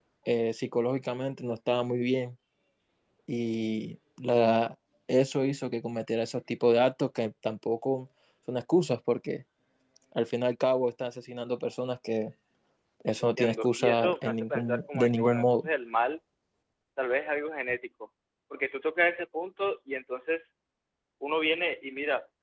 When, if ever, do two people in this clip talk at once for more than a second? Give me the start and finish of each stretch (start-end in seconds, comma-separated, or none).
13.4-15.7